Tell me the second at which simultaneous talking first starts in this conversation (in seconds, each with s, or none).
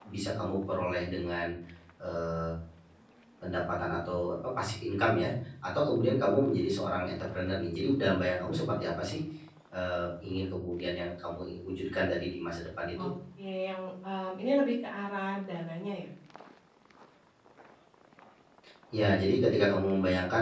none